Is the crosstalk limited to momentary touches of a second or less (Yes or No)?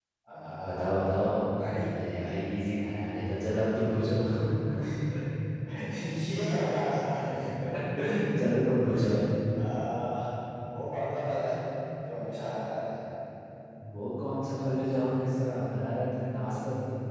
Yes